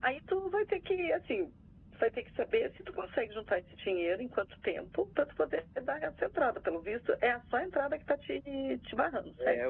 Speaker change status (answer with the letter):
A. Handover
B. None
A